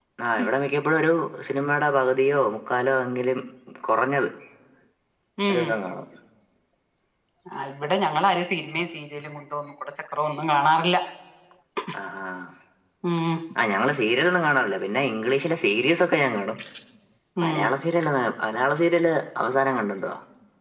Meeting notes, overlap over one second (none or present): none